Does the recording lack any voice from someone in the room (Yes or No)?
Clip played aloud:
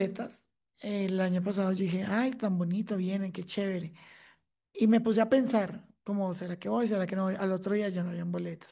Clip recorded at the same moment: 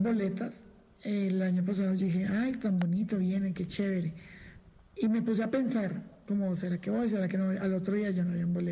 Yes